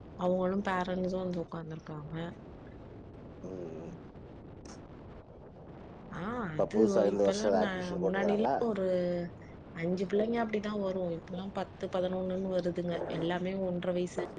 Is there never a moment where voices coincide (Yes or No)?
No